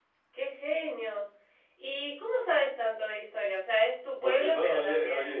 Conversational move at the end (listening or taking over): taking over